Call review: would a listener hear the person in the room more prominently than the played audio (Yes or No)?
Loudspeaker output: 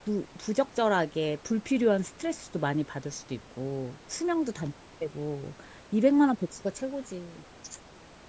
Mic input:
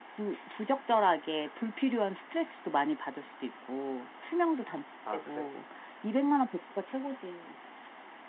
No